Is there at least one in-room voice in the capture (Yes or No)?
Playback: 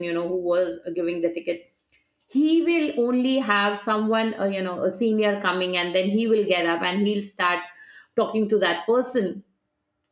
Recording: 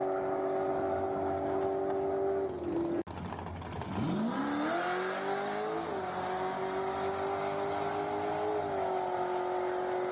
No